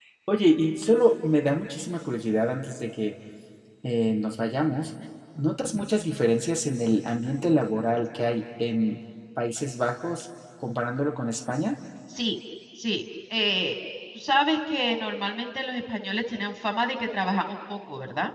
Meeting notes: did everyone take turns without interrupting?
Yes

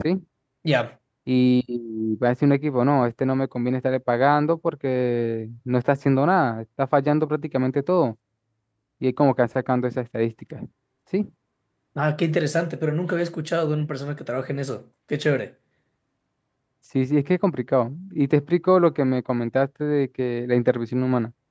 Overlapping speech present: No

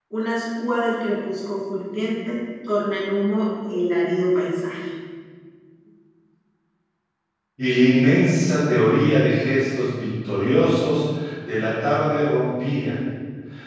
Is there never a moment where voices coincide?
Yes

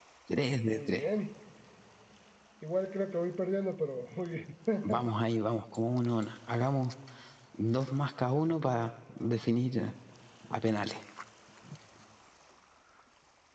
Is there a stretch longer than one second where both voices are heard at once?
No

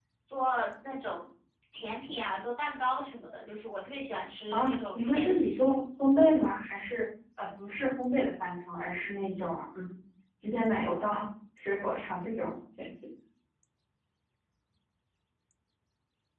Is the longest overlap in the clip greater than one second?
Yes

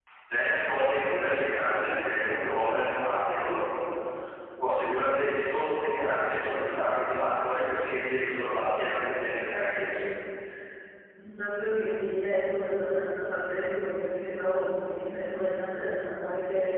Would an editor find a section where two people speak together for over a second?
No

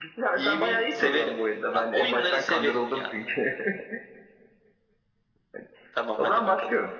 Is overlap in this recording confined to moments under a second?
No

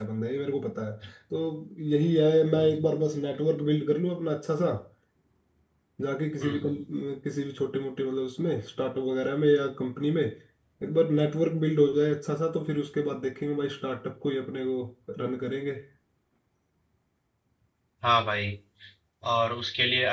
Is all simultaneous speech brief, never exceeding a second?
Yes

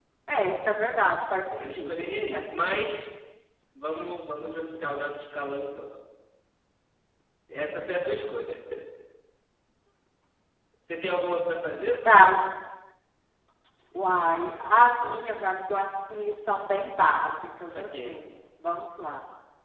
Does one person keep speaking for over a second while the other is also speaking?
Yes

